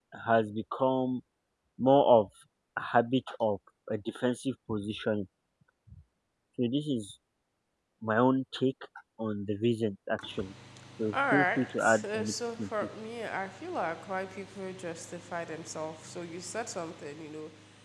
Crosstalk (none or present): present